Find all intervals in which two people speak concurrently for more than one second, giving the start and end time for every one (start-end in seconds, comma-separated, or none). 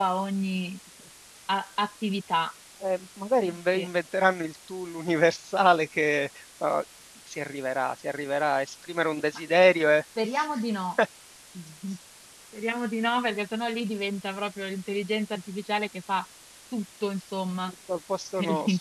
none